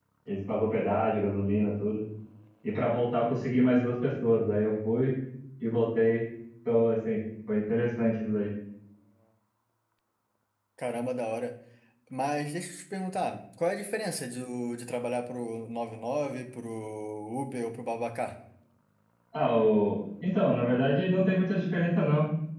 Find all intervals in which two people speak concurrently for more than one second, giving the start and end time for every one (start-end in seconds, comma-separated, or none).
none